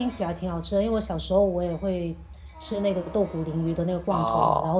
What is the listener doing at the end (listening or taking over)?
listening